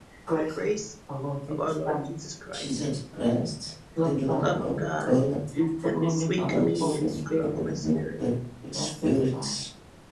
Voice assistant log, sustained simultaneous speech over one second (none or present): present